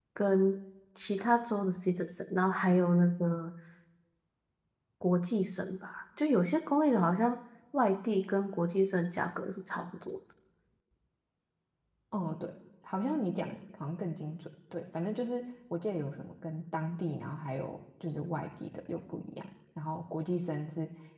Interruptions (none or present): none